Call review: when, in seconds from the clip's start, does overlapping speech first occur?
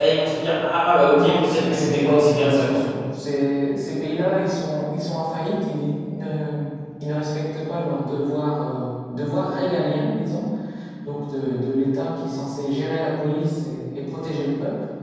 1 s

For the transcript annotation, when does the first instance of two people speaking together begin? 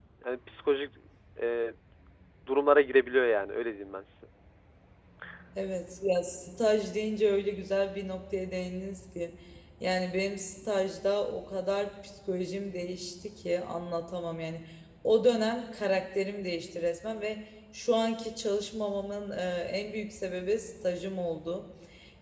none

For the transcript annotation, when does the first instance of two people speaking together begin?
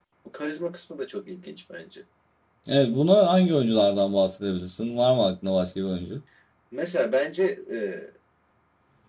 none

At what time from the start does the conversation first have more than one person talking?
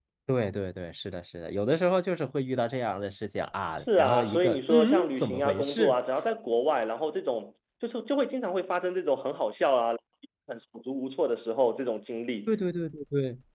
4 s

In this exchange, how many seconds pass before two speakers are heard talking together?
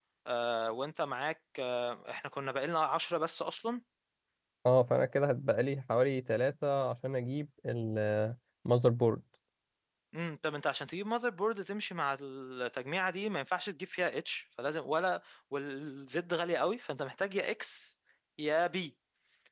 none

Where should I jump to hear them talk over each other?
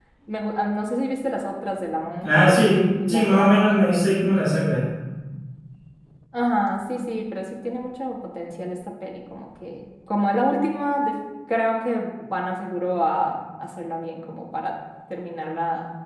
2 s

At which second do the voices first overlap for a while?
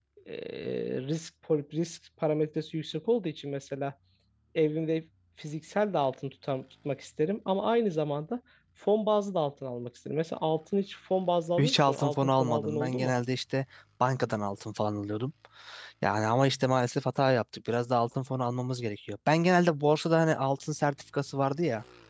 12 s

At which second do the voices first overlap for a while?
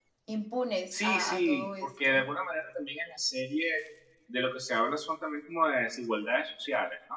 1 s

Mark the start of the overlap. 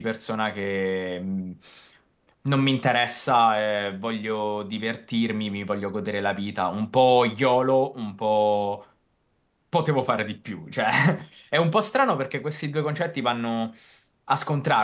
none

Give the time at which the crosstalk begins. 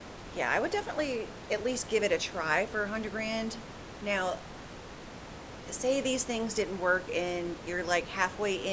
none

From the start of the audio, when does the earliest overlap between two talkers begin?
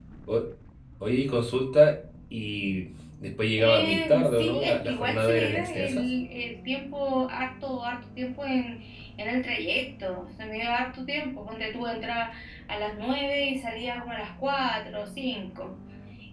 4 s

